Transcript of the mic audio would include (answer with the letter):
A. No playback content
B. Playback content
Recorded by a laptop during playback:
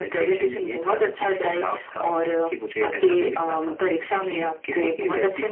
B